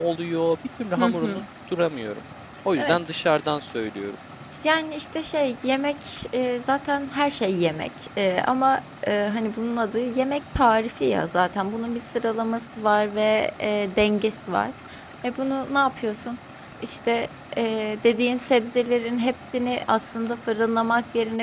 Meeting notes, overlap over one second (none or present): none